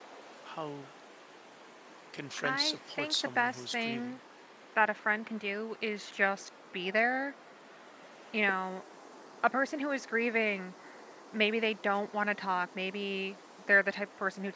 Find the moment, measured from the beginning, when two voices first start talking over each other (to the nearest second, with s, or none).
2 s